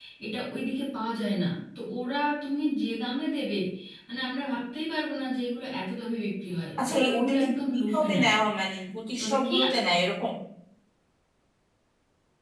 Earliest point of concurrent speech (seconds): 6.9 s

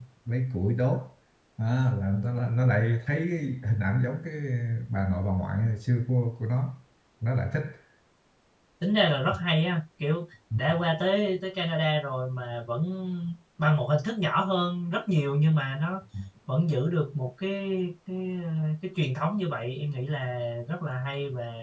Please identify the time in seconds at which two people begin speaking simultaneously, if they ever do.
none

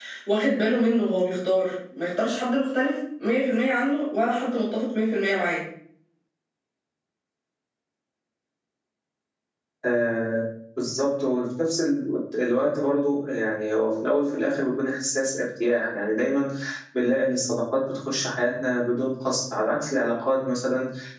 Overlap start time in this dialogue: none

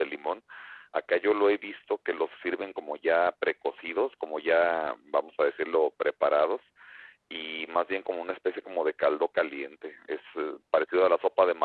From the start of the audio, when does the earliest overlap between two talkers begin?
none

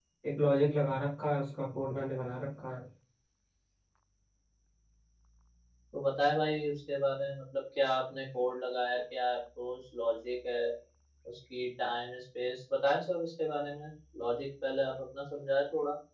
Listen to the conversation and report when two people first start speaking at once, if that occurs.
none

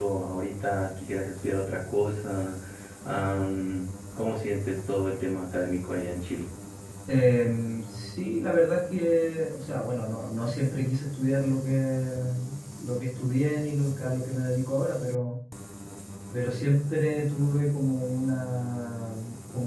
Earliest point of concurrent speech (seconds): none

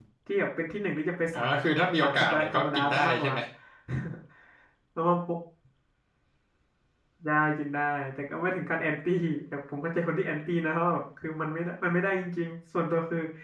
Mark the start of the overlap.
1.3 s

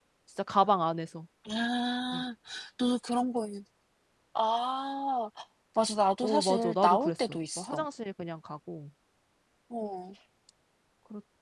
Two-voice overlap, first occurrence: 6.2 s

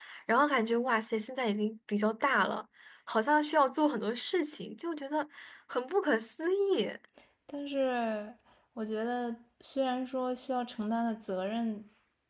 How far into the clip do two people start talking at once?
none

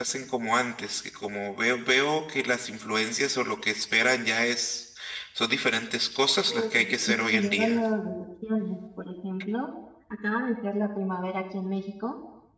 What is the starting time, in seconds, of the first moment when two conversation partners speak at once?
6.5 s

